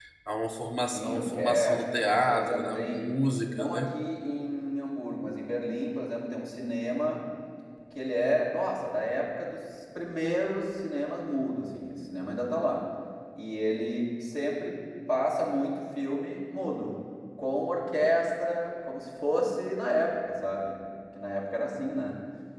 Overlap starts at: 0.9 s

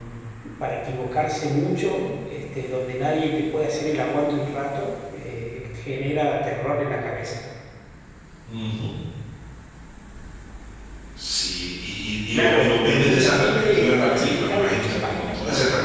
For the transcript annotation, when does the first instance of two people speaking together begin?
12.3 s

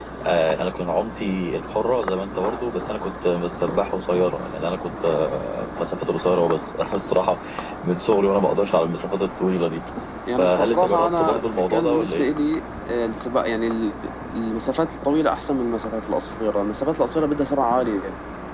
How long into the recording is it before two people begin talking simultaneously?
10.4 s

